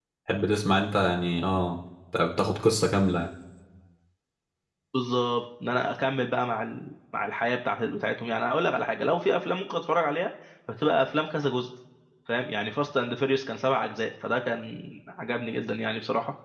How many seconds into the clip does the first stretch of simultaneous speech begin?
none

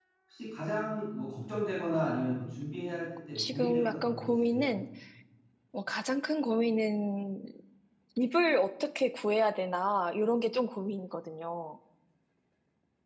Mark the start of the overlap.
3.4 s

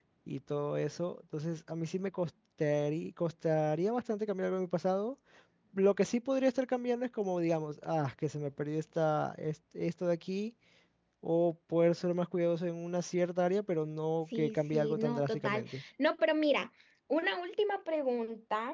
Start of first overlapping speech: 14.3 s

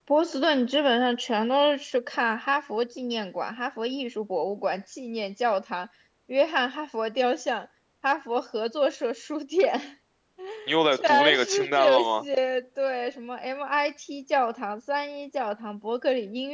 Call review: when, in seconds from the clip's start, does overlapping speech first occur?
10.9 s

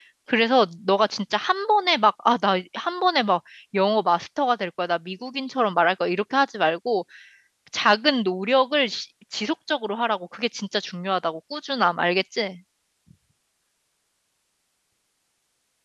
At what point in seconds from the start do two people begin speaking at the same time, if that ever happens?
none

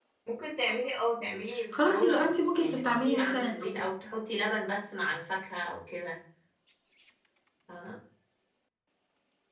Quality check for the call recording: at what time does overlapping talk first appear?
1.7 s

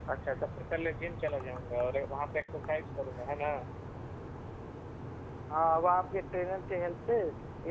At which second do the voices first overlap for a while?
none

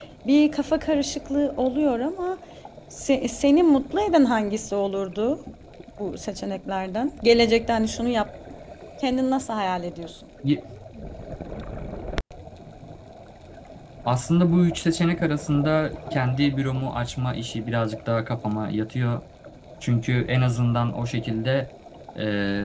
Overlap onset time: none

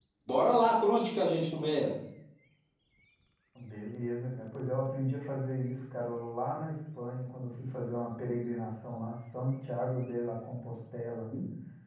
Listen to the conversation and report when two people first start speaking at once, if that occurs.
none

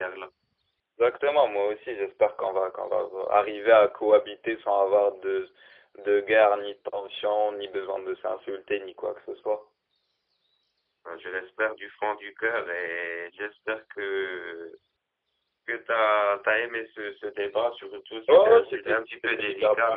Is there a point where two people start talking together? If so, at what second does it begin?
18.3 s

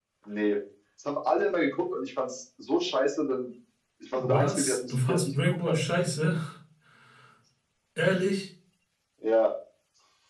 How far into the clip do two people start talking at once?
4.2 s

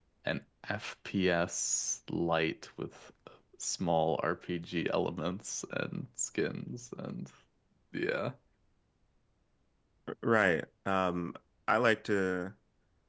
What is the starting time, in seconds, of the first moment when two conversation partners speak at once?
none

